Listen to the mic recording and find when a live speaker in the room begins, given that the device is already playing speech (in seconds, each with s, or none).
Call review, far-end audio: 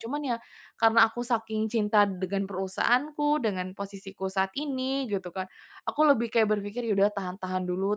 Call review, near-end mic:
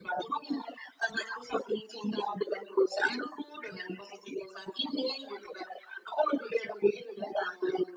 none